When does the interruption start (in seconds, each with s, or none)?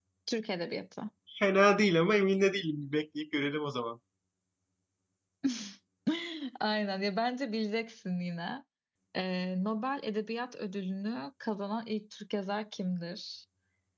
none